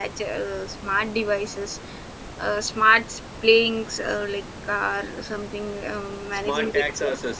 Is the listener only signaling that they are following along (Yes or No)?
No